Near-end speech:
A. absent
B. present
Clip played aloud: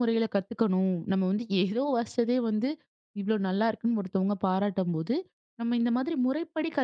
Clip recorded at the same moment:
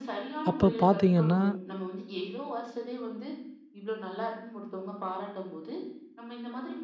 B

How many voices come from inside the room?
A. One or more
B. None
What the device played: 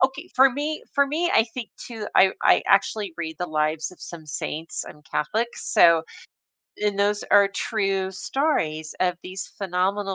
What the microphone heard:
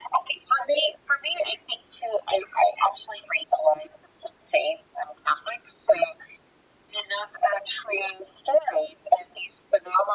B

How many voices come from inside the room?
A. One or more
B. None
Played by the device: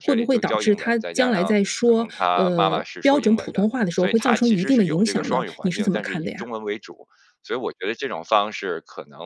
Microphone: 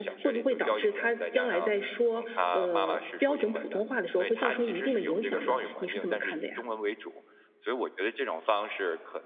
B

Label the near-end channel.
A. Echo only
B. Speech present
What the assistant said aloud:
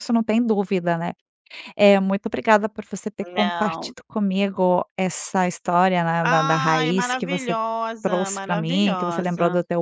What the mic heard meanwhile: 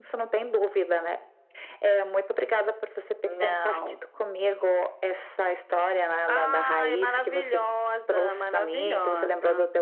A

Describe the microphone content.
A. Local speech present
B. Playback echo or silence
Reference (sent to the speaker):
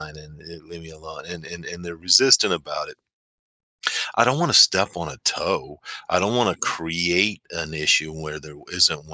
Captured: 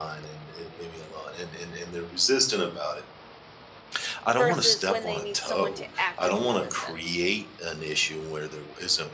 A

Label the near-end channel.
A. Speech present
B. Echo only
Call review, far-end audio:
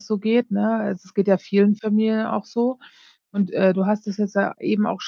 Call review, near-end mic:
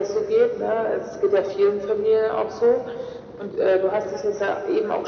B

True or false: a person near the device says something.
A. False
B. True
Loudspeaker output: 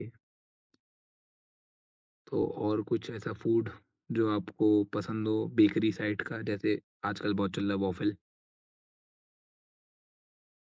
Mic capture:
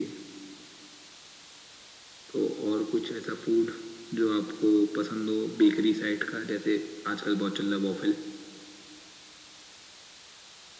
A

